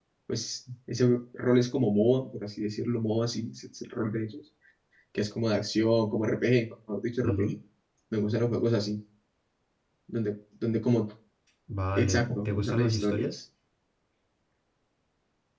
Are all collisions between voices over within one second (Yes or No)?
No